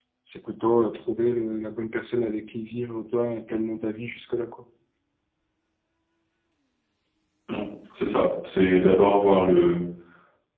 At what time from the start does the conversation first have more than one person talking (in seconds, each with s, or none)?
none